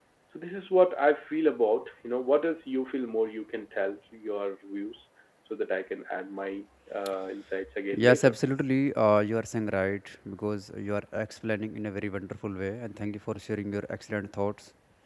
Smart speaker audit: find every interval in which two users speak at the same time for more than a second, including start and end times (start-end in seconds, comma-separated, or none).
none